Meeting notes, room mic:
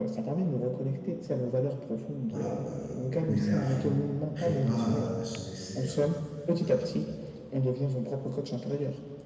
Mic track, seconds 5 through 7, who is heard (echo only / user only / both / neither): both